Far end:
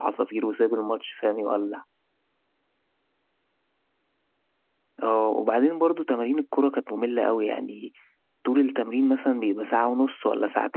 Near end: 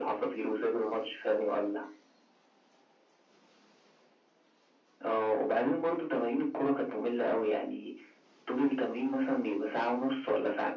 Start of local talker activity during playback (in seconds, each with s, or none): none